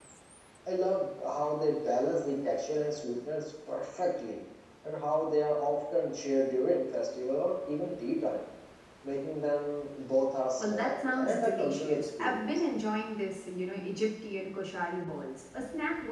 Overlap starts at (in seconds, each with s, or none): 10.6 s